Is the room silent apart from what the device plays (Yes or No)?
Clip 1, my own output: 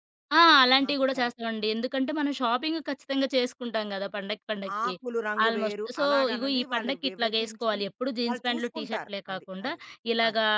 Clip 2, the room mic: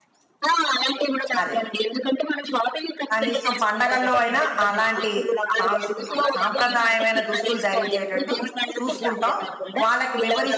No